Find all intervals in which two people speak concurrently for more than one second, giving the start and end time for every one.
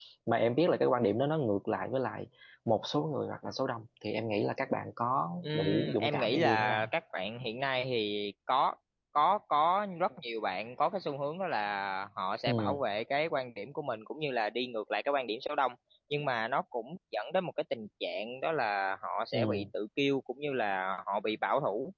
5.4-6.9

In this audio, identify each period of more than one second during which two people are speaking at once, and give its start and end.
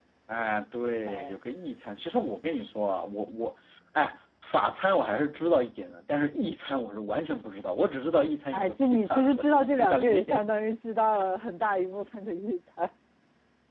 8.5-10.5

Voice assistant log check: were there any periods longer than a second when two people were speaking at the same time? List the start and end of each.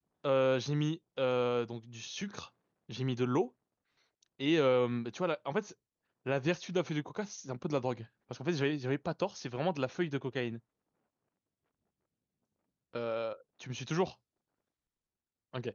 none

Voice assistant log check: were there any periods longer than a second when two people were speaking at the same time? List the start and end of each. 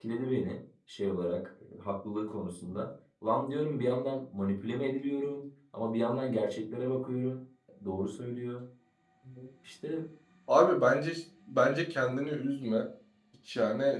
none

